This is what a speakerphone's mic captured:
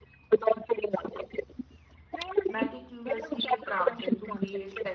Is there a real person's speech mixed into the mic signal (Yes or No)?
Yes